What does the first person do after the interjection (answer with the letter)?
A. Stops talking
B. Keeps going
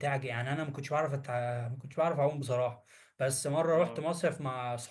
B